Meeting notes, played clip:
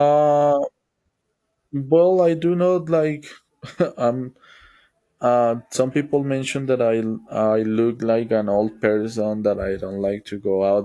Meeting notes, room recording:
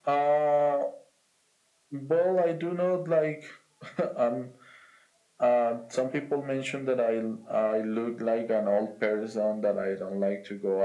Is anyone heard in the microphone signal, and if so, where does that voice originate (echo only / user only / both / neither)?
echo only